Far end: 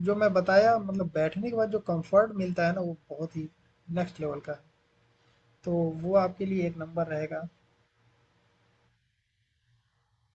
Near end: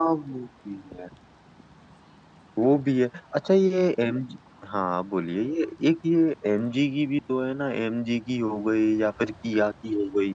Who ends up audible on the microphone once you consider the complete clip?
user only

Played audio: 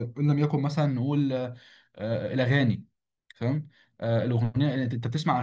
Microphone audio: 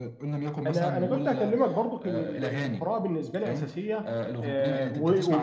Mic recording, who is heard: both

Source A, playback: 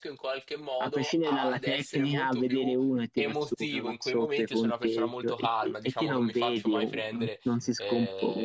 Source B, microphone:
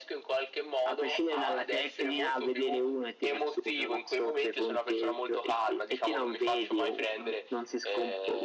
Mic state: echo only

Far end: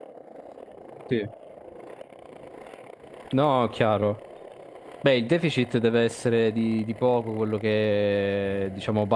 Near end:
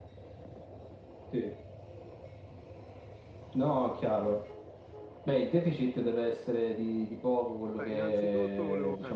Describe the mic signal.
both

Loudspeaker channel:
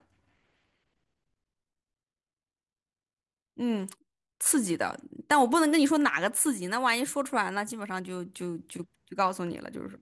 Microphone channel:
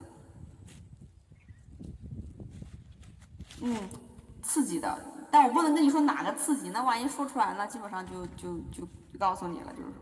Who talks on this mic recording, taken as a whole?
echo only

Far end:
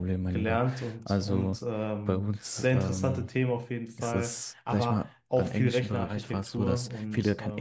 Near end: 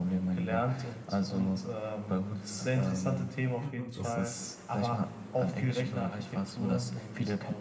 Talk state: both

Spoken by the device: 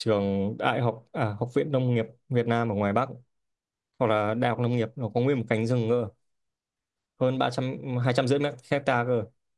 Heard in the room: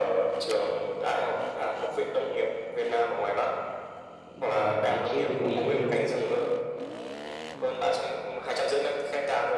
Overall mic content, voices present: both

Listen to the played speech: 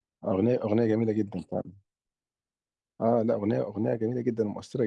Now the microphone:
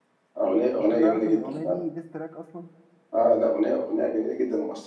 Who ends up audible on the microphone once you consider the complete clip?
both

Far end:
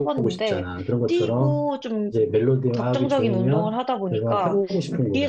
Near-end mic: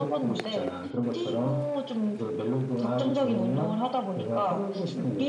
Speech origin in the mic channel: echo only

